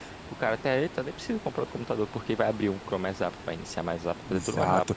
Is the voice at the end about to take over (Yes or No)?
Yes